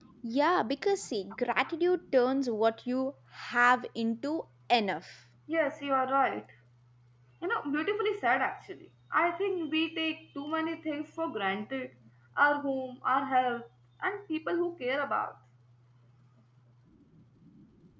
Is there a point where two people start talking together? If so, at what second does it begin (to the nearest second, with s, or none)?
none